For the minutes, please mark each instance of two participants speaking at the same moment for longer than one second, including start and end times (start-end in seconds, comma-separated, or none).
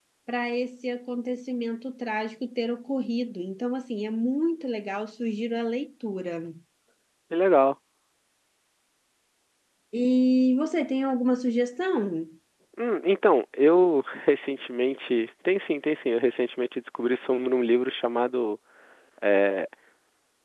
none